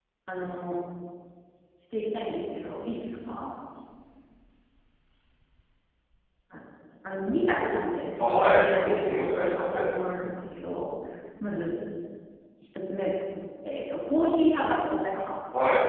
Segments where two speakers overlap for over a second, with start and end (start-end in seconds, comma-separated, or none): 8.2-9.9